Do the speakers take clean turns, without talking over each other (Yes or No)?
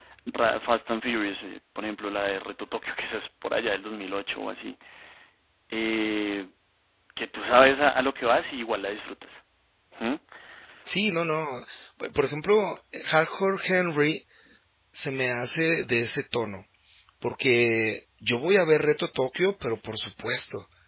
Yes